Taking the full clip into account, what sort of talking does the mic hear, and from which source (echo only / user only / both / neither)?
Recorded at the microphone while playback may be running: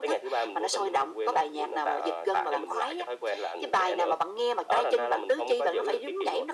echo only